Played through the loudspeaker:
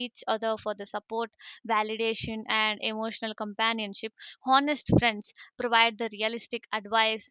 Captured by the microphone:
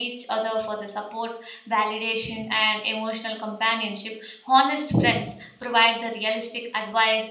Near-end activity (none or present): none